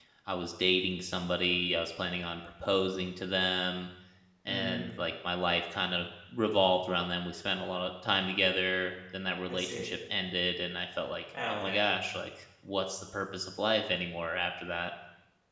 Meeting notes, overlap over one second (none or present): none